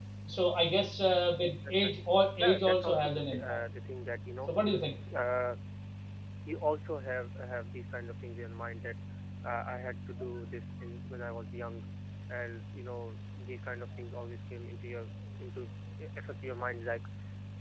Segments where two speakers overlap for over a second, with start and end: 2.4-3.6

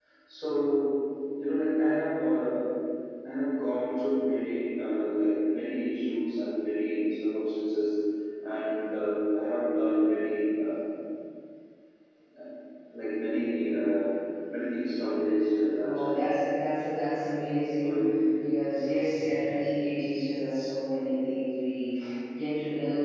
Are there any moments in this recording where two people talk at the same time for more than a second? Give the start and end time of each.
none

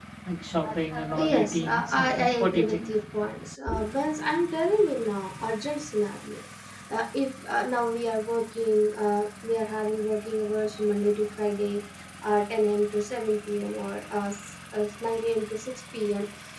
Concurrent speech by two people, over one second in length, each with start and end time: 1.2-2.8

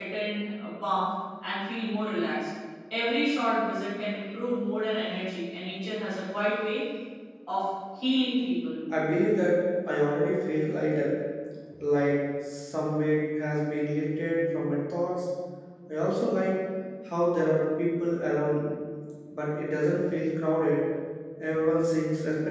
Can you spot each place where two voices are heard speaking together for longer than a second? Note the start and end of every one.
none

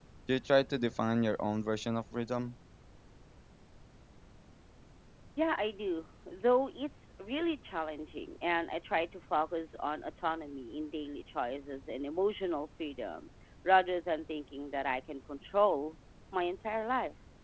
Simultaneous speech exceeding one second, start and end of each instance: none

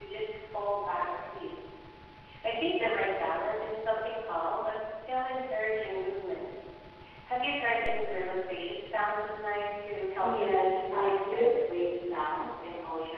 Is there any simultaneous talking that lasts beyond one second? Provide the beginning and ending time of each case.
10.2-11.5

